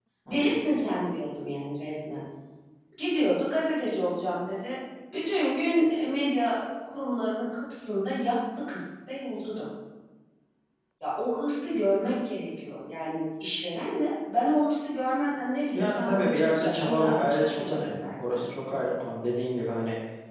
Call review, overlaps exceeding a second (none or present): present